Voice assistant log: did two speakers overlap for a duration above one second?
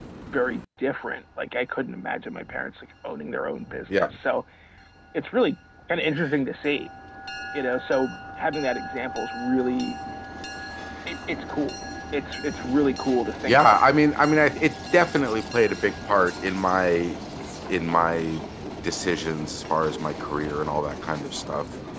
No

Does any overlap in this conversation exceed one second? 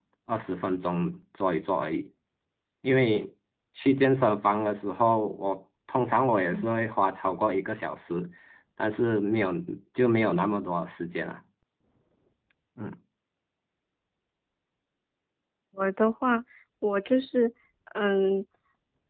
No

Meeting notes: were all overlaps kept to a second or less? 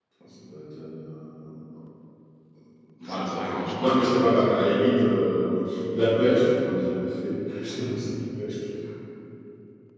No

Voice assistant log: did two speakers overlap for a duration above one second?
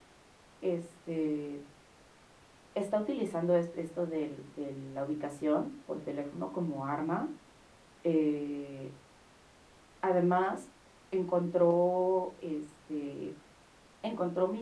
No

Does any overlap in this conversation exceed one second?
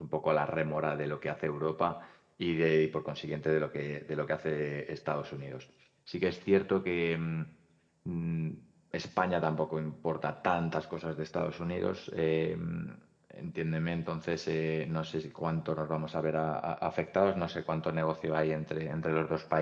No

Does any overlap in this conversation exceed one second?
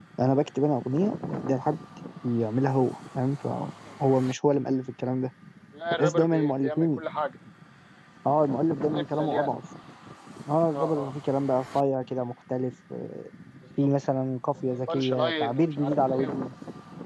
Yes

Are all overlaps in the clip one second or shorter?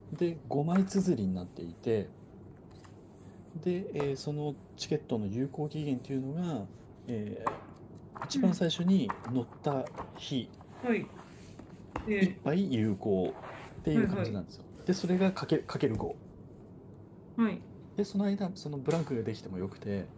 Yes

